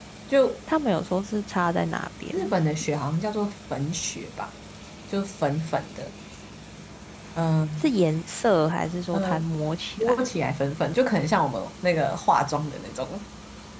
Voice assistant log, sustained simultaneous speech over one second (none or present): none